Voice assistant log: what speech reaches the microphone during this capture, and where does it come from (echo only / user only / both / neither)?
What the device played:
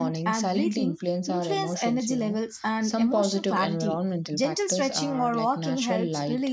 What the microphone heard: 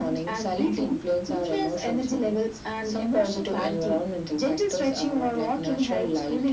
echo only